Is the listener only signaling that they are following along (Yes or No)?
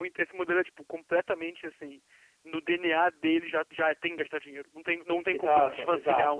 No